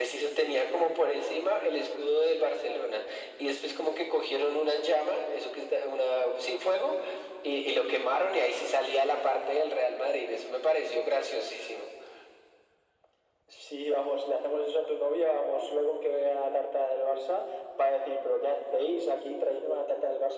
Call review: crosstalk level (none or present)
none